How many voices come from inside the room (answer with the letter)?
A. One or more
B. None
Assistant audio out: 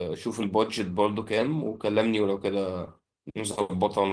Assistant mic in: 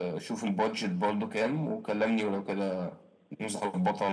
B